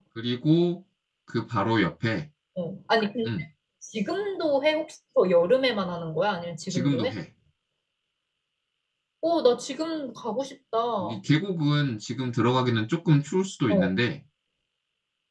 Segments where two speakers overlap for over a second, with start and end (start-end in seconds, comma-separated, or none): none